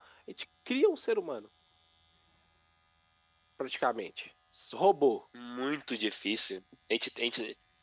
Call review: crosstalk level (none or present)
none